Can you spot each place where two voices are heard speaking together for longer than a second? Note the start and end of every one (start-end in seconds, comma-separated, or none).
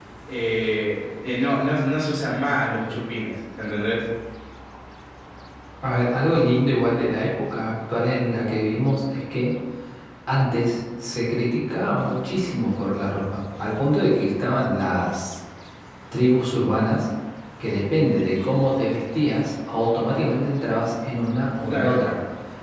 none